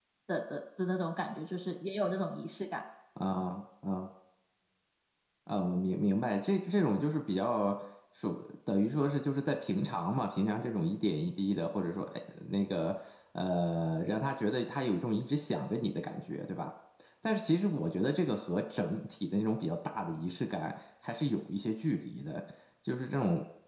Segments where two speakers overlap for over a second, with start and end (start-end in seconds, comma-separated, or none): none